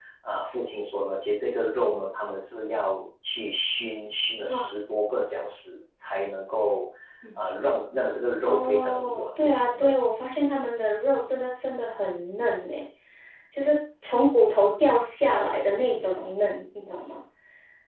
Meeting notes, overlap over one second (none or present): present